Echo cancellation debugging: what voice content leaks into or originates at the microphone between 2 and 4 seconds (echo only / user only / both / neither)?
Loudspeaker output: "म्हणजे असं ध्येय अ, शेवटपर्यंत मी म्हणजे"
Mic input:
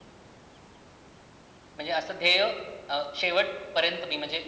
echo only